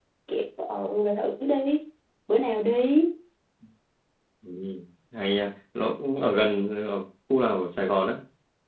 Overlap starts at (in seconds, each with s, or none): none